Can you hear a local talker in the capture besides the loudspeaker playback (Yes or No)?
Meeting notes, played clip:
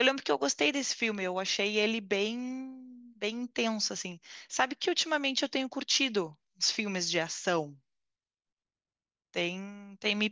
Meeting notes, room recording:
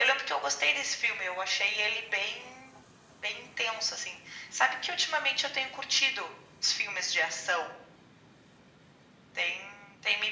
No